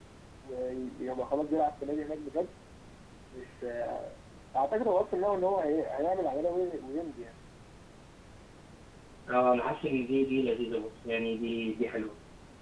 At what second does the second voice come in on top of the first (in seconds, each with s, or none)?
none